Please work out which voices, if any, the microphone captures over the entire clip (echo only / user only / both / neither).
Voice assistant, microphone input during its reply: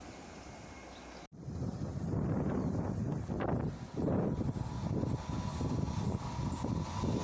neither